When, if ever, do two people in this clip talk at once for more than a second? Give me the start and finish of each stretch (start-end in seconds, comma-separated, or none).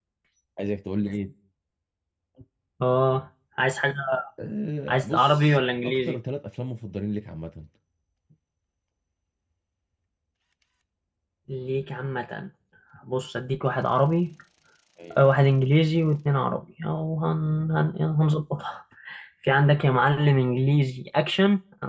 4.9-6.2